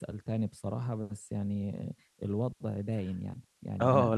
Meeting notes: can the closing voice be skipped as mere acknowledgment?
No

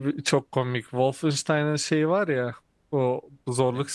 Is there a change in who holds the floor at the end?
No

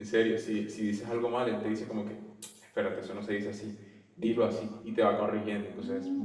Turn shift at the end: Yes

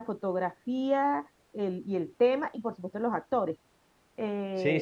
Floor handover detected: Yes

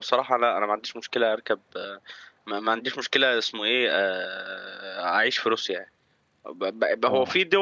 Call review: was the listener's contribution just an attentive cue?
Yes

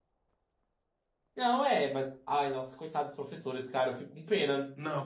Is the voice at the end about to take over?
Yes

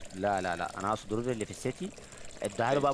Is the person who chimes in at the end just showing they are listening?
Yes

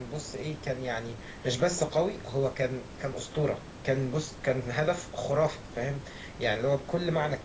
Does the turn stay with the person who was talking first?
Yes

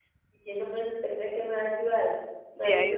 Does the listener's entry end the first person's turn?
No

